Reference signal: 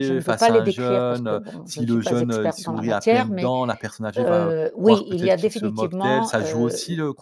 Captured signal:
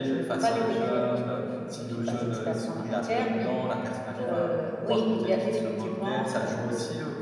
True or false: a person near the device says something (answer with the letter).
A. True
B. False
B